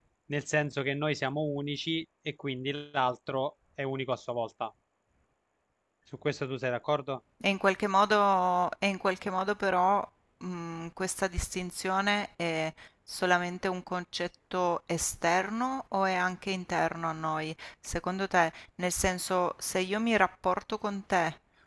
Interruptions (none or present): none